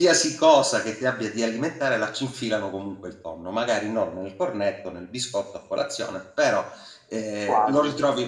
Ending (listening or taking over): listening